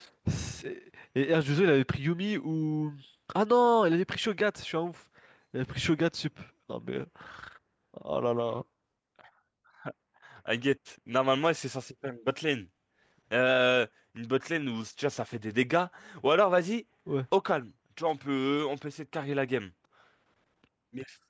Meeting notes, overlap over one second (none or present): none